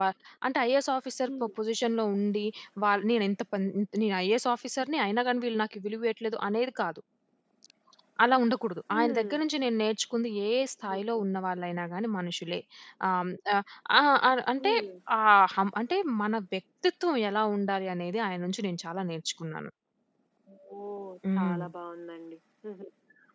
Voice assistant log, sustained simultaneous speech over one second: none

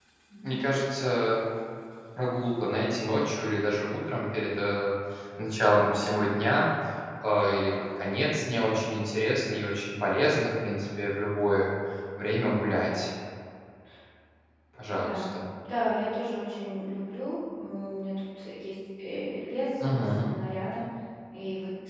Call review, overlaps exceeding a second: none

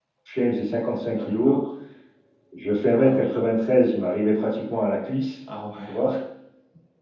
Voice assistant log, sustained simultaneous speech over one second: none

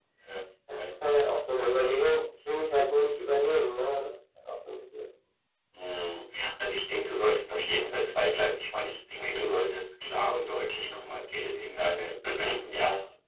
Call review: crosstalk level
none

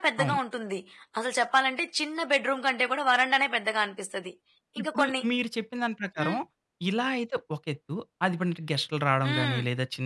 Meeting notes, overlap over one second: none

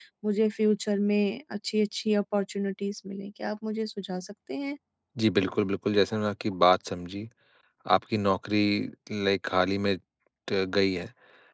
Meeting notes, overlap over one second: none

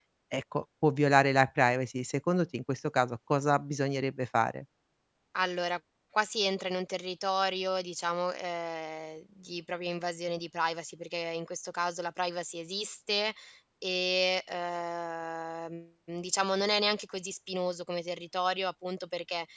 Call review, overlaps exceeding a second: none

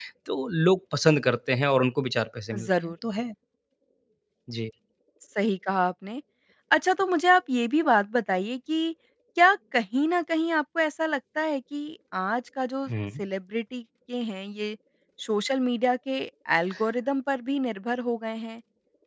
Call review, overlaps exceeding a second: none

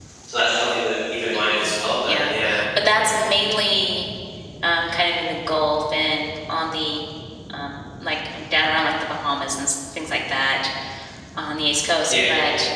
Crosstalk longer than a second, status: none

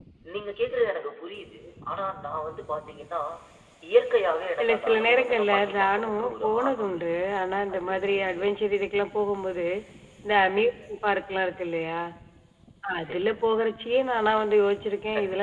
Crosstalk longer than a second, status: present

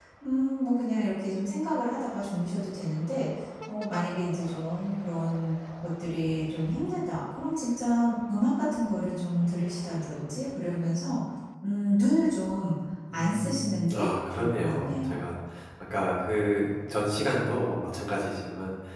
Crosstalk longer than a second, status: present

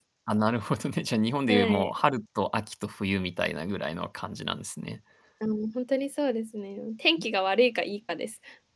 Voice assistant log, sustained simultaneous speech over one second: none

